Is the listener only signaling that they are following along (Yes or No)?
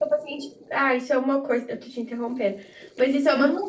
Yes